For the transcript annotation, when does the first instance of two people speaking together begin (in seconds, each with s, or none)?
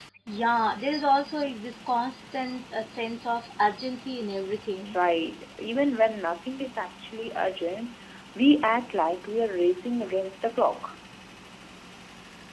none